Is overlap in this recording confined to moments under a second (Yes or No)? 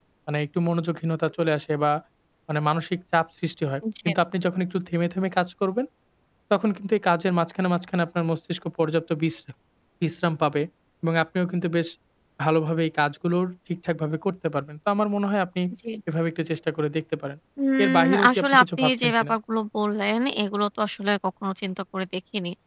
No